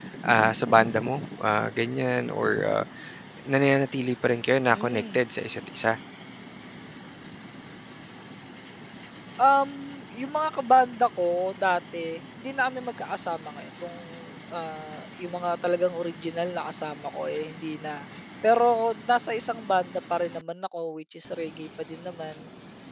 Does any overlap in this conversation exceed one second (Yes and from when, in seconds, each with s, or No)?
No